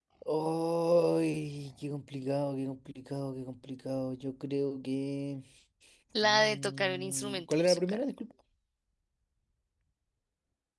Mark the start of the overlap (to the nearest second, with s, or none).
6 s